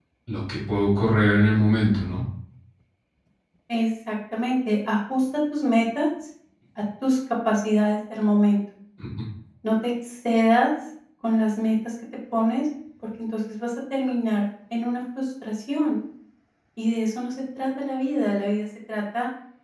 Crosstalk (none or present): none